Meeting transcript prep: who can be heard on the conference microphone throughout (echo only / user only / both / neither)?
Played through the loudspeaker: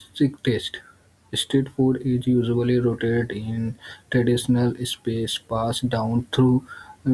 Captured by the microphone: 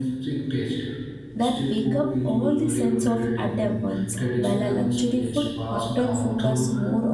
both